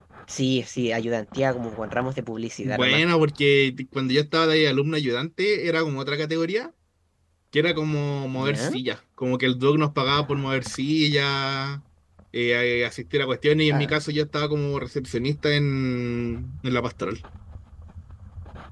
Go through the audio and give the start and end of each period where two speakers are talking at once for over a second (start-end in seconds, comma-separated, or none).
none